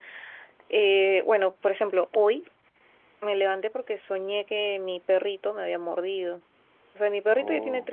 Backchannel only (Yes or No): Yes